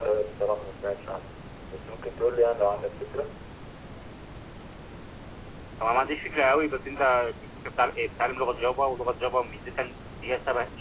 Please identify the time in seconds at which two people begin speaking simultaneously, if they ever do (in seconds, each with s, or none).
none